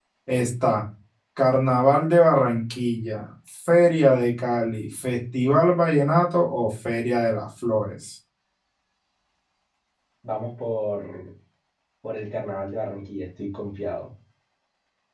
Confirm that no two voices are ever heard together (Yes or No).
Yes